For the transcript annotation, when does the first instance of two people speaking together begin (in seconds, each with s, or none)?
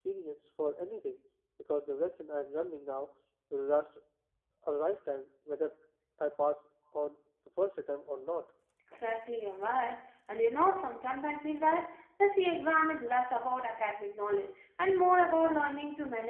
none